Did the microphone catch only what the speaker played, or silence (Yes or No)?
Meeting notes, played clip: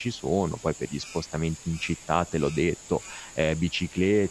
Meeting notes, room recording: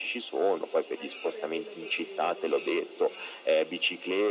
No